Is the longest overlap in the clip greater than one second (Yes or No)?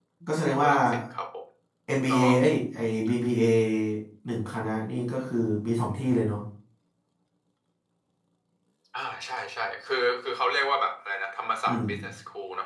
No